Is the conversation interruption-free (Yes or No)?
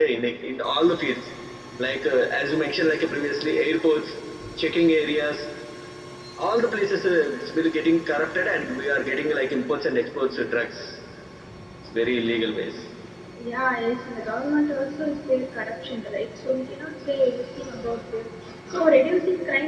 Yes